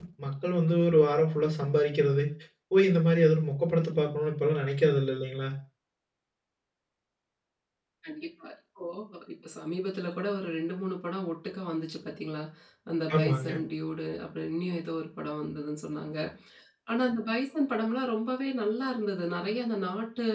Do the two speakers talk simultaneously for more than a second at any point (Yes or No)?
No